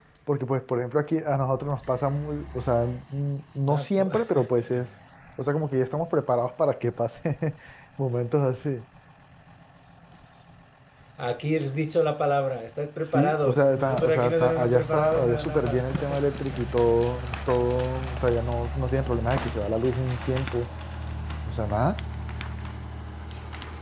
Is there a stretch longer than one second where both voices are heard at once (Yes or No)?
Yes